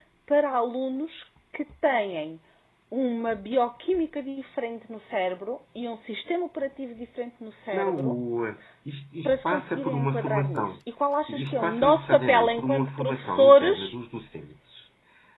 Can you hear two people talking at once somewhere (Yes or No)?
Yes